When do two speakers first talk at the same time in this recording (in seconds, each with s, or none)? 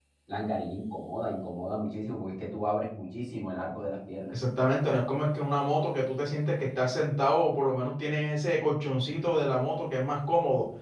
none